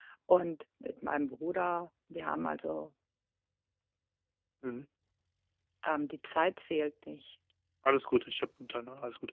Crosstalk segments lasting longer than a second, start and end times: none

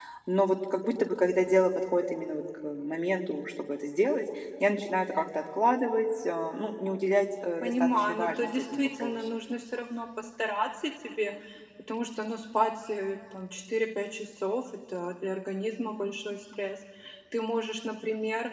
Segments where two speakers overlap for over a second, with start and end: 7.6-9.2

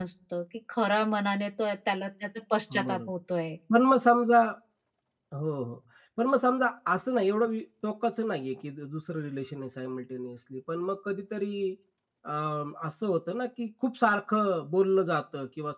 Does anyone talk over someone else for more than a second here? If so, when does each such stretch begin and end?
none

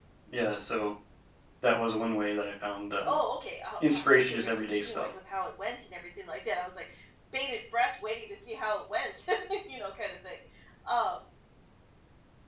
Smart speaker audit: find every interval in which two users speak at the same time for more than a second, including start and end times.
3.8-5.1

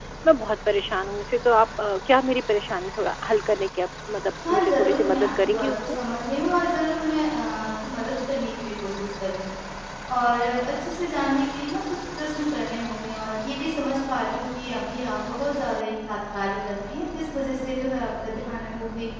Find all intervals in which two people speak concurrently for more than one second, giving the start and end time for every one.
4.5-5.9

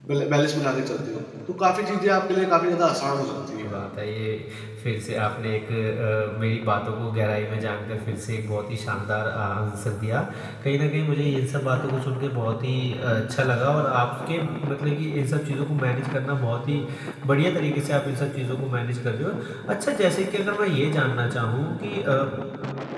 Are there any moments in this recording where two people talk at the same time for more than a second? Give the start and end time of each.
none

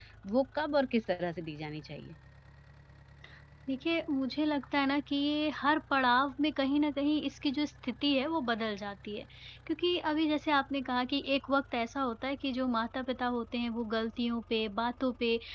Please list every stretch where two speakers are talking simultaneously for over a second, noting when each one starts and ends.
none

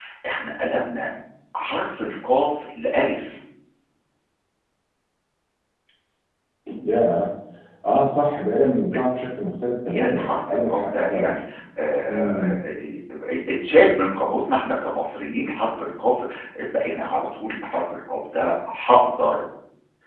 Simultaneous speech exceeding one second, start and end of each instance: 9.9-11.3

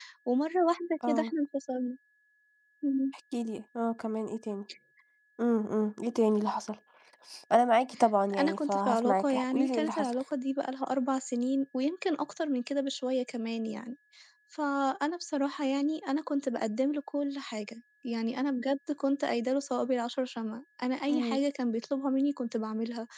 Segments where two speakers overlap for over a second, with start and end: 8.4-10.1

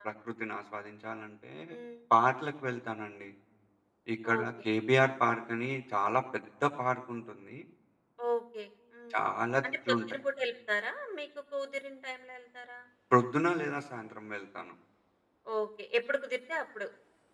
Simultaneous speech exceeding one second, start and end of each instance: none

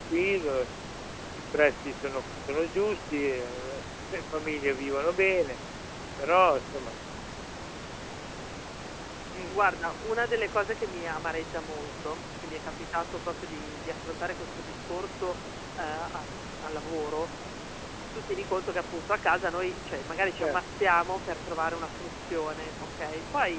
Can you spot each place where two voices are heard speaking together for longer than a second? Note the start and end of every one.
none

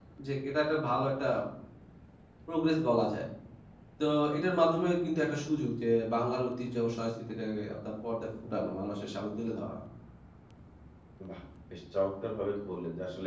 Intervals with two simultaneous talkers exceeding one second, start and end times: none

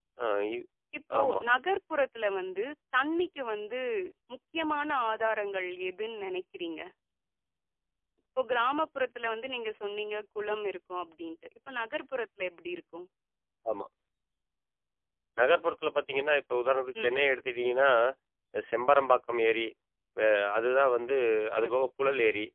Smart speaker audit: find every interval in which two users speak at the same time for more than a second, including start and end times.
none

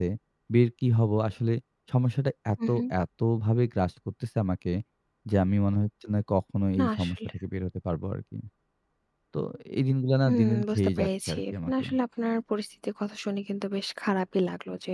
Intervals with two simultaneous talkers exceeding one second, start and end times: 10.3-11.8

